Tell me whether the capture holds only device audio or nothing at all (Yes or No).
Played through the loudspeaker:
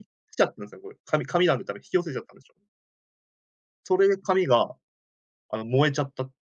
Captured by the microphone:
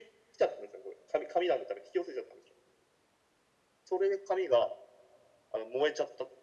Yes